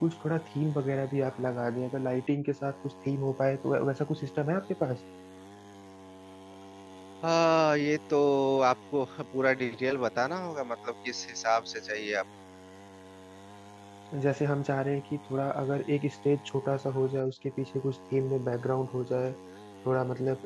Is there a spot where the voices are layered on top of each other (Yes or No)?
No